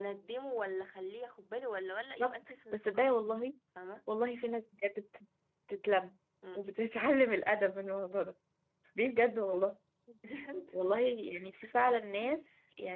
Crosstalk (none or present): present